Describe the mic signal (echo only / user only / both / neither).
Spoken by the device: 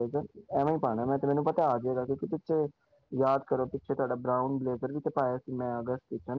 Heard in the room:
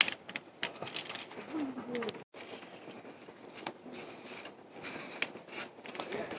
neither